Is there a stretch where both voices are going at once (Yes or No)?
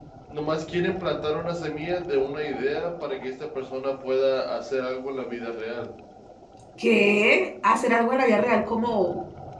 No